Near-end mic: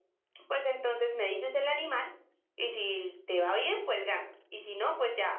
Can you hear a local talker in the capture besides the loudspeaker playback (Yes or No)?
No